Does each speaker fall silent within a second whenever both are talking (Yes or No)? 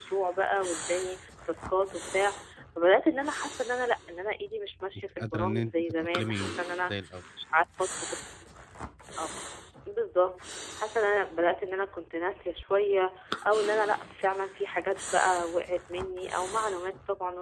No